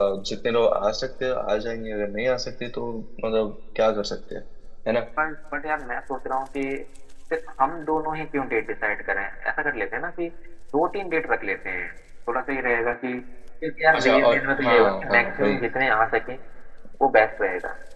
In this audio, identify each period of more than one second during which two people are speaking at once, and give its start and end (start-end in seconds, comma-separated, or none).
14.0-15.6